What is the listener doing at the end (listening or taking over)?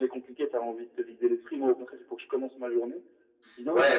taking over